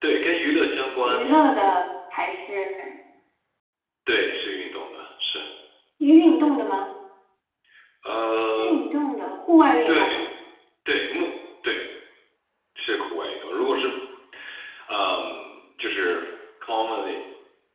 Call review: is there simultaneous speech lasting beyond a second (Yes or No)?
No